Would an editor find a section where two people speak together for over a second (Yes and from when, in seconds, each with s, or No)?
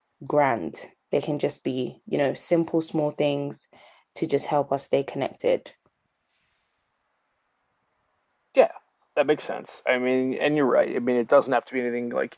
No